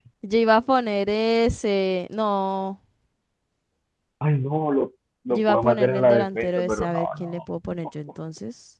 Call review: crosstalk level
present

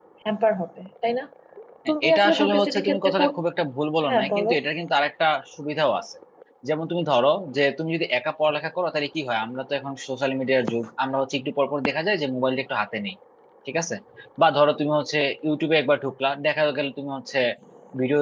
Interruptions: present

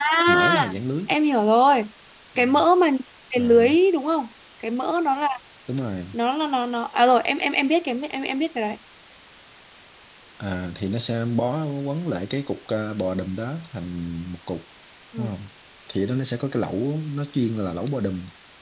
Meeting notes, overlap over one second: none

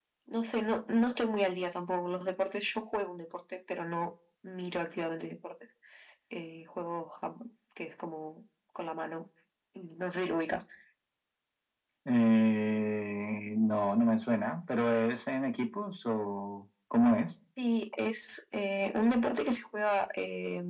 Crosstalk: none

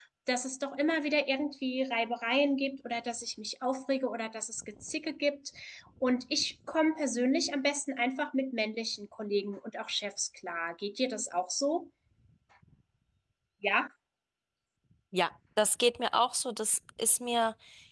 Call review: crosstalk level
none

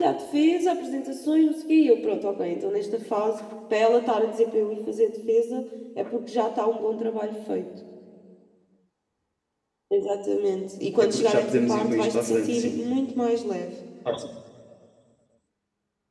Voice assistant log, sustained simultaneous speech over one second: present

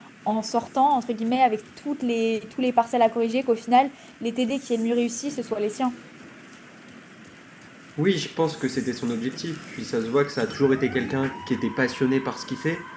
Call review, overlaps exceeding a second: none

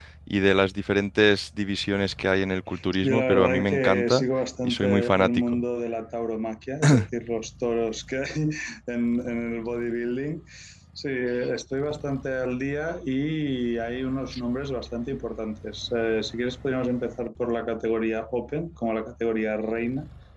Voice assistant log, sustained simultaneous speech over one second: present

